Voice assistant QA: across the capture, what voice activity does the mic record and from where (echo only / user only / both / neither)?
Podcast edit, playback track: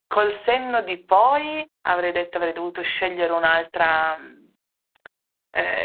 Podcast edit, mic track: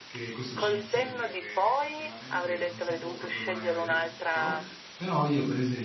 both